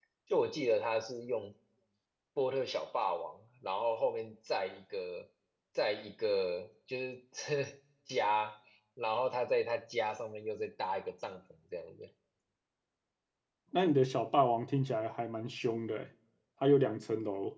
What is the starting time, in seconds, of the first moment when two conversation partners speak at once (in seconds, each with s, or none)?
none